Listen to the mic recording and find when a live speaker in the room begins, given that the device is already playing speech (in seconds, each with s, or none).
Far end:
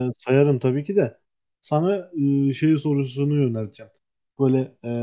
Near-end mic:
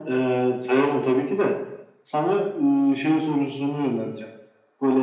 none